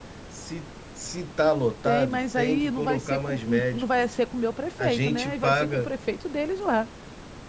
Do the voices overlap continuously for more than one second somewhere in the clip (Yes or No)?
Yes